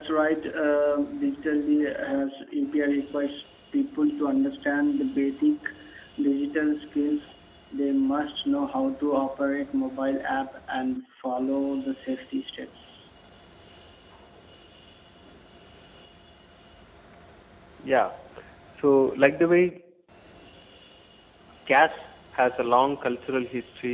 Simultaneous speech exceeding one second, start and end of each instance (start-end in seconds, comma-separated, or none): none